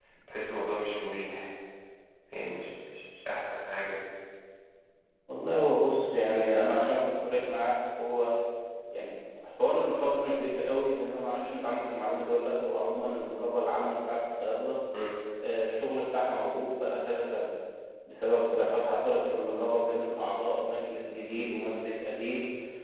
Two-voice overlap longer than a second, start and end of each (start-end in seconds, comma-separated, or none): none